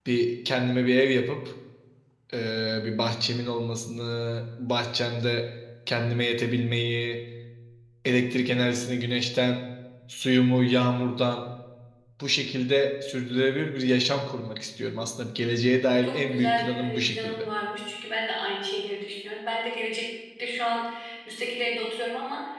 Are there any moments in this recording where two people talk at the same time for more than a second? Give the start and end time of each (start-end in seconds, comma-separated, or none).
16.0-17.5